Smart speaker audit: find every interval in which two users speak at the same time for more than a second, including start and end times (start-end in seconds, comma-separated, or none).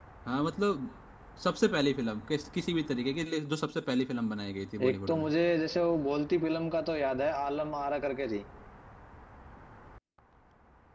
none